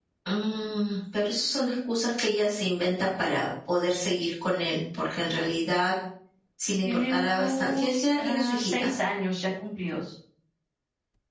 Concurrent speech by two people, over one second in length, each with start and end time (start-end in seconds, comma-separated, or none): 6.8-8.9